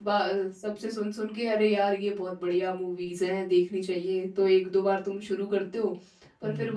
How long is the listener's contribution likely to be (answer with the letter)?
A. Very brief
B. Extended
A